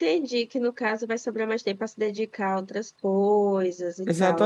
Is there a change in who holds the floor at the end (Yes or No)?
Yes